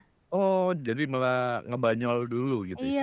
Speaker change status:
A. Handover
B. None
A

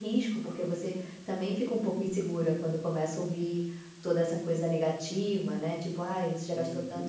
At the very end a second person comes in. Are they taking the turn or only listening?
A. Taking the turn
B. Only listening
B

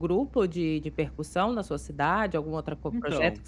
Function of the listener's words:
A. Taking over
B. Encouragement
B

